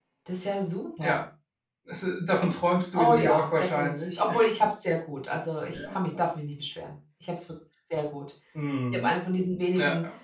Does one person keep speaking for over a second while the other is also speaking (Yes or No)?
Yes